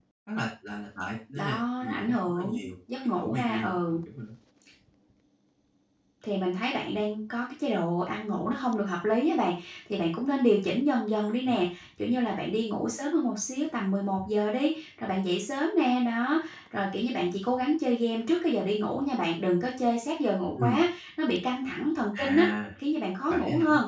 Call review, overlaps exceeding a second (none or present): present